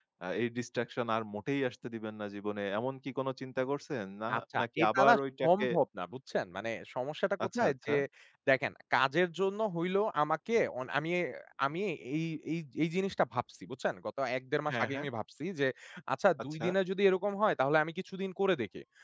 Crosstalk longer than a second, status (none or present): present